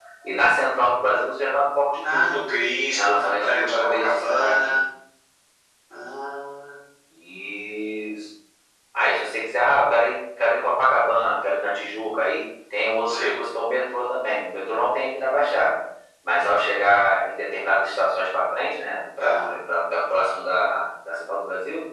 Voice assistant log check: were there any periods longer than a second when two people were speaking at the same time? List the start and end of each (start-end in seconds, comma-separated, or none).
2.9-4.8